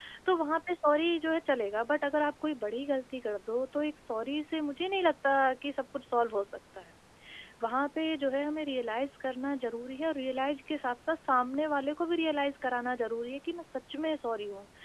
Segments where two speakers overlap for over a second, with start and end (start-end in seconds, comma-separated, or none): none